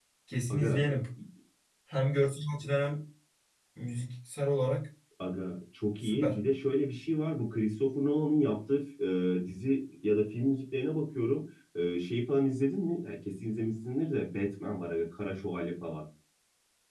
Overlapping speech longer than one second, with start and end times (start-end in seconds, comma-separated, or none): none